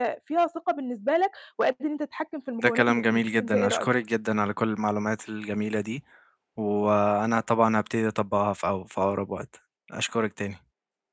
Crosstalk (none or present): present